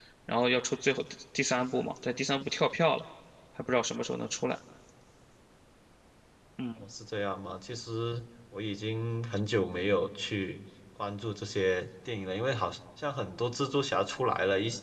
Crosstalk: none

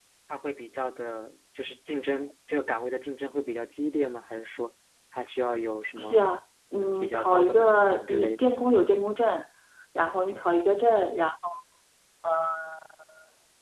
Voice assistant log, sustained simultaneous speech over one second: present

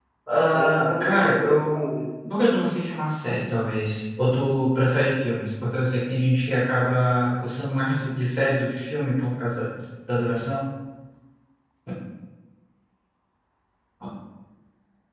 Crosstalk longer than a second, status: present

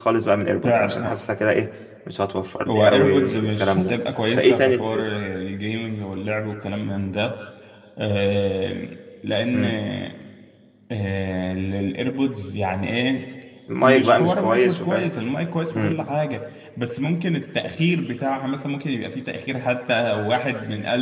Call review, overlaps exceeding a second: present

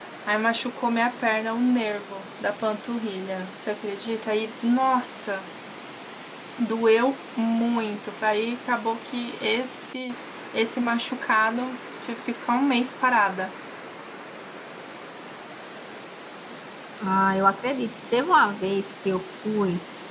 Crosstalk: none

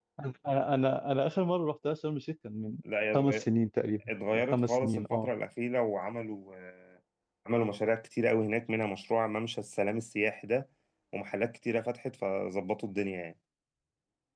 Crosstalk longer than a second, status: present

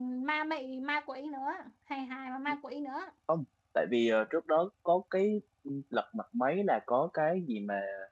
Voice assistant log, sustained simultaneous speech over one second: none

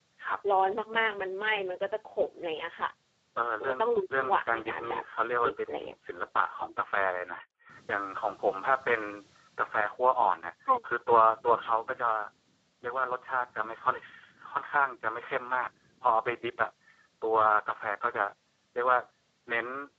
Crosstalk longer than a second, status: present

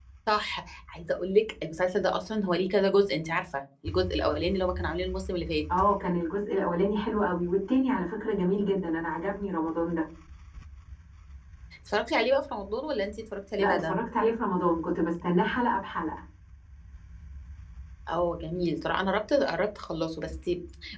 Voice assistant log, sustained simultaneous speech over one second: none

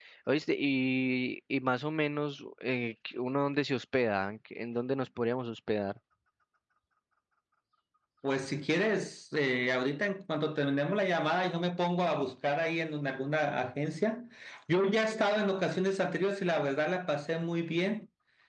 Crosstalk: none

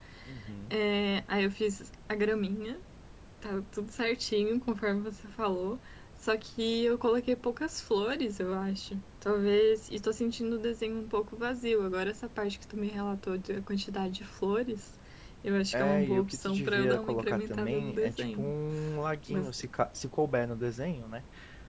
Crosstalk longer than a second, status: present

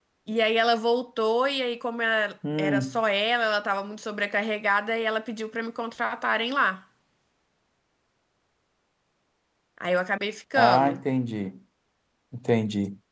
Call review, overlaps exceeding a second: none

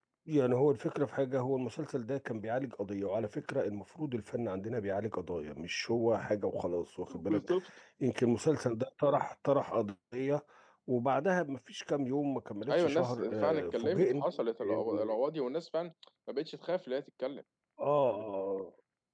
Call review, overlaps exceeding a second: present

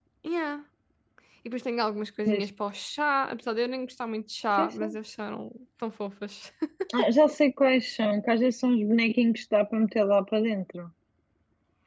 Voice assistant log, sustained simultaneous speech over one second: none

